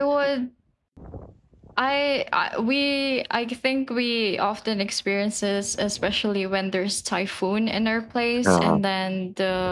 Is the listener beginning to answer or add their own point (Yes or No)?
No